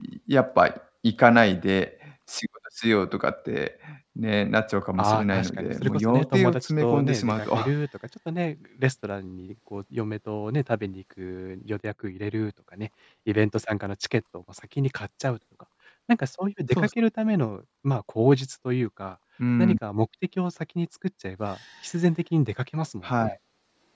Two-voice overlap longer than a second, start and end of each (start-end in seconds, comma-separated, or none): 5.0-7.6